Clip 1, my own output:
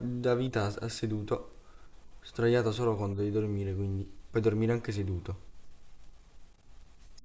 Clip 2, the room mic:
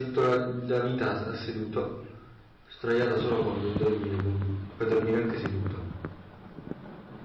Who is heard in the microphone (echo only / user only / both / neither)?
echo only